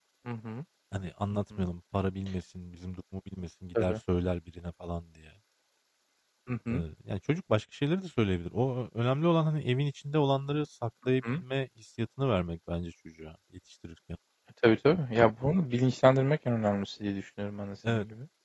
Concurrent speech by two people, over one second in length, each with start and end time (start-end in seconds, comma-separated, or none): none